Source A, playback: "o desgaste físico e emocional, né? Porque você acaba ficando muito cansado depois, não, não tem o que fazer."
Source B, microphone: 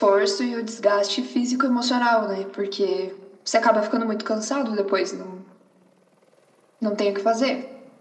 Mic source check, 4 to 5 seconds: echo only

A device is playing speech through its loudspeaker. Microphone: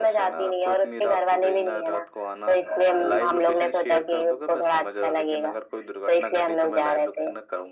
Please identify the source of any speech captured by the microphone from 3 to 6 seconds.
echo only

